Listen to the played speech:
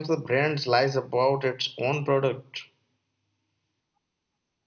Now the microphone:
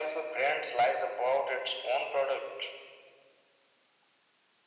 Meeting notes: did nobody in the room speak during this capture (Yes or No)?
Yes